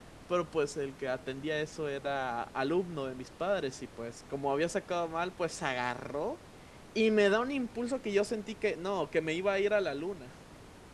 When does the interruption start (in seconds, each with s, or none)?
none